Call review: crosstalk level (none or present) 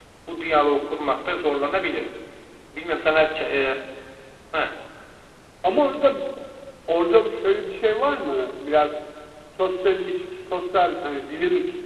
none